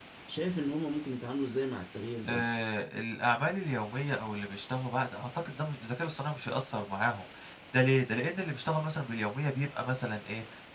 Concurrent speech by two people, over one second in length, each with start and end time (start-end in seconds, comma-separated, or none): none